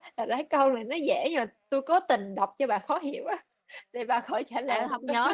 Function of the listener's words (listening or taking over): taking over